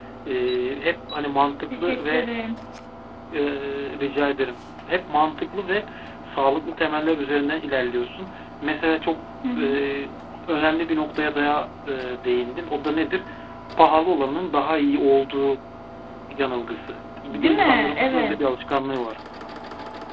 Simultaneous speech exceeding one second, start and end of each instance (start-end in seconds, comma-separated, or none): 17.3-18.5